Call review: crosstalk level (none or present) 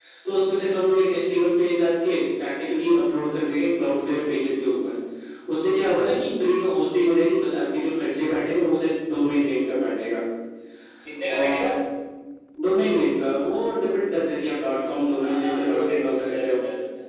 present